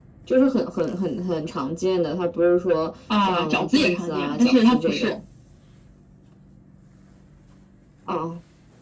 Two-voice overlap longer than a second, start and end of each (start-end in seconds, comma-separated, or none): 3.2-5.1